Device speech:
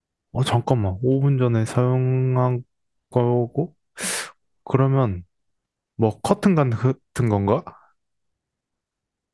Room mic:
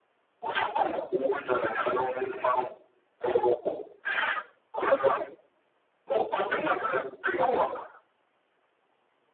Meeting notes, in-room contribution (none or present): present